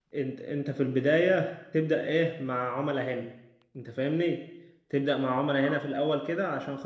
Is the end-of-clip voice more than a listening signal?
No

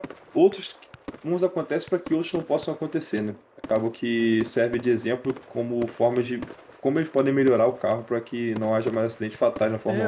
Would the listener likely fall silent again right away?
No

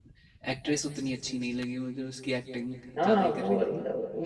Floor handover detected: Yes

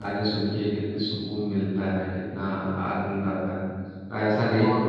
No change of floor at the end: Yes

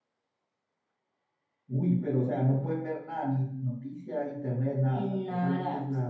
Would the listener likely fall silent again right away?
No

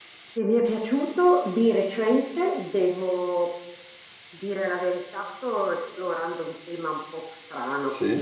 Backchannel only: Yes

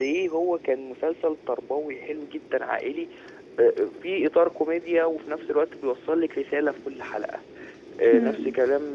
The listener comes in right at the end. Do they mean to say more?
No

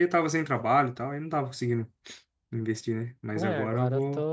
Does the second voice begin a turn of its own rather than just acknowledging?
Yes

